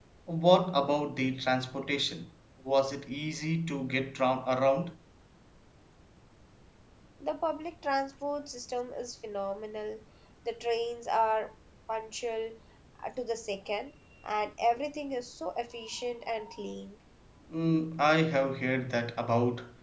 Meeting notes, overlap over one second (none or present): none